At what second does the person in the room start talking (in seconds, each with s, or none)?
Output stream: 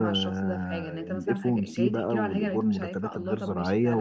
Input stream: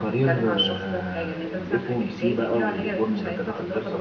none